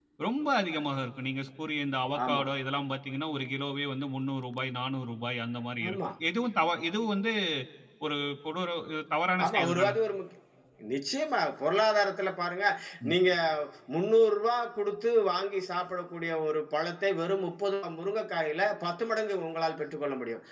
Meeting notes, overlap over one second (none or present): none